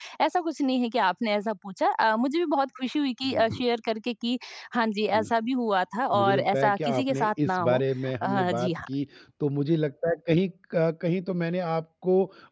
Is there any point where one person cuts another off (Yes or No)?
Yes